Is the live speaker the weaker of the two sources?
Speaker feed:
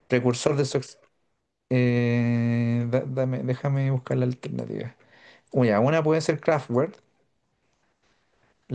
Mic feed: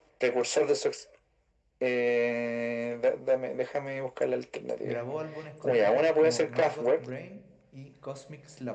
Yes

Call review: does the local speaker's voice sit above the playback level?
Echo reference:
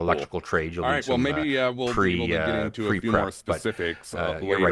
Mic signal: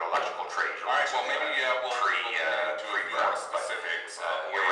No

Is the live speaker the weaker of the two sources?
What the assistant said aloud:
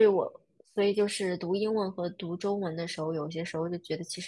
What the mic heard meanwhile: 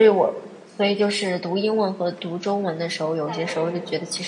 Yes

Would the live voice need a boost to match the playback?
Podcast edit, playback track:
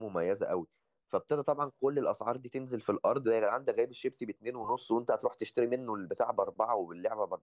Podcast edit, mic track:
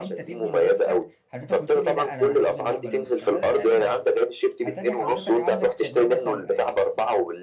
Yes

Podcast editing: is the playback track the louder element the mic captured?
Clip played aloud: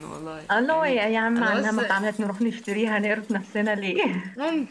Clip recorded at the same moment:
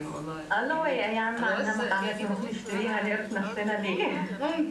Yes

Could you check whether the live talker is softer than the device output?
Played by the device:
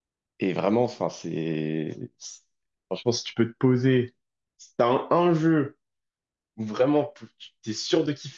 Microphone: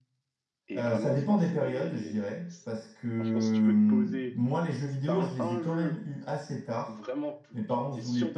No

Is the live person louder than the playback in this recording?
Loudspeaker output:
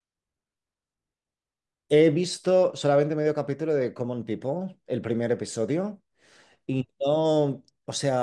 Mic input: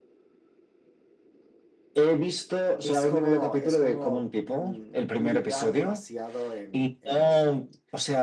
No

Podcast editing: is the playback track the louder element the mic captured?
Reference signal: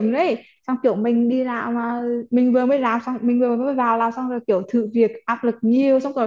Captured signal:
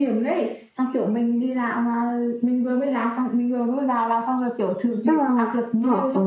No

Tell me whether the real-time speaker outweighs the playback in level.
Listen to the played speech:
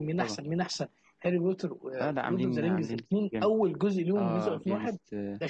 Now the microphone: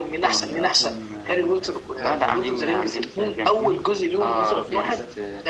No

